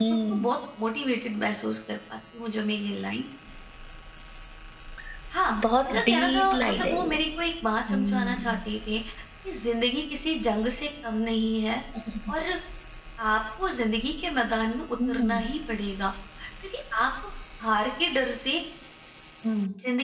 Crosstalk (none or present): present